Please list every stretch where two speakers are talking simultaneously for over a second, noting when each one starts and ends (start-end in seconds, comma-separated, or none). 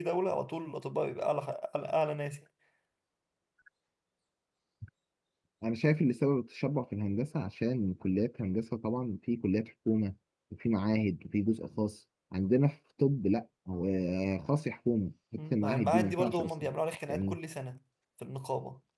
15.4-16.7